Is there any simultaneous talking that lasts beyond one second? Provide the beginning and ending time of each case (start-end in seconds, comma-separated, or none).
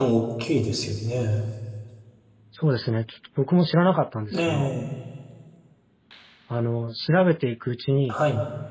none